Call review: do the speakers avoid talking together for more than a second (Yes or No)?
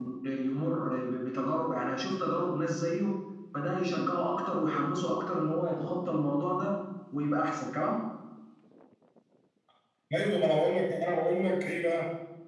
Yes